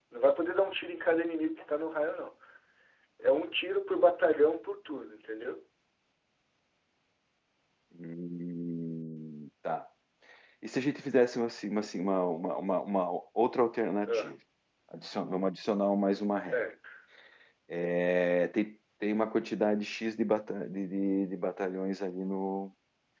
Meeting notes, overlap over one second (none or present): none